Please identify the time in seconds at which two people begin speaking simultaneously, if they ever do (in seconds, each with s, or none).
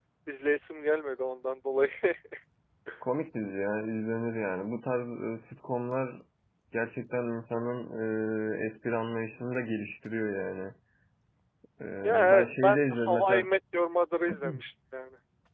12.0 s